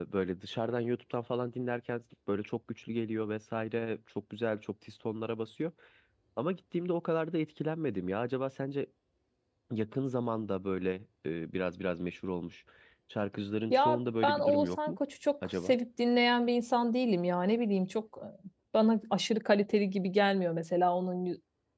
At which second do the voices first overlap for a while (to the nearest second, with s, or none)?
14 s